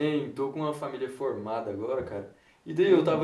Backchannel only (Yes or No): Yes